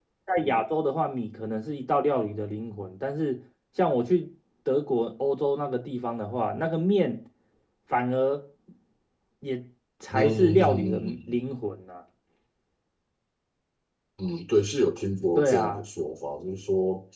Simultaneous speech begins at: 10.1 s

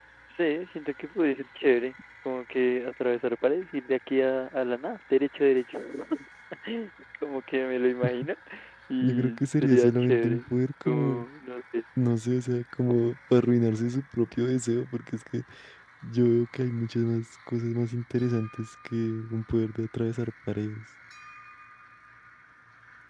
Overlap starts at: 9.0 s

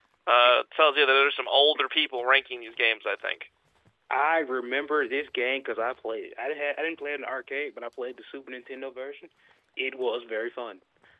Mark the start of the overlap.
none

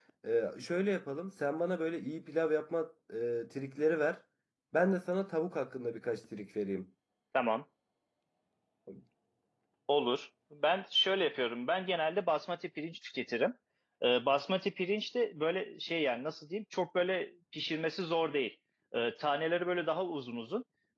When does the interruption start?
none

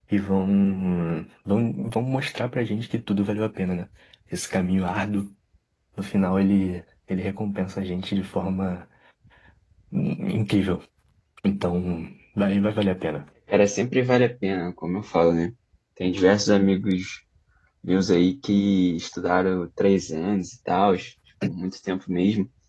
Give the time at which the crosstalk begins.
none

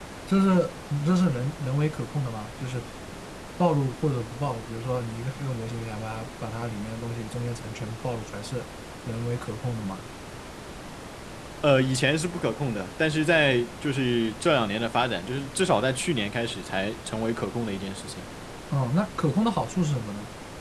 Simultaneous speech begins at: none

